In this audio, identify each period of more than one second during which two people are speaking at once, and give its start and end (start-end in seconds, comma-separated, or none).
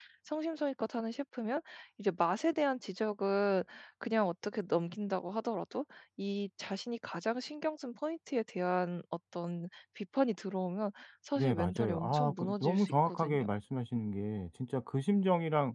11.4-13.4